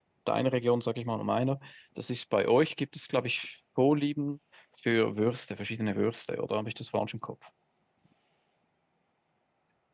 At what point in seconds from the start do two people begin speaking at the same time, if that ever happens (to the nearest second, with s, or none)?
none